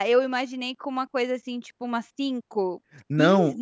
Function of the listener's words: taking over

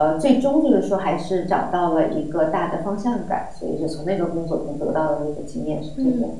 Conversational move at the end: taking over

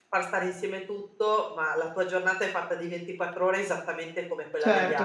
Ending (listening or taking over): taking over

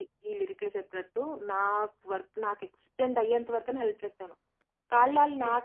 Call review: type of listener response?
listening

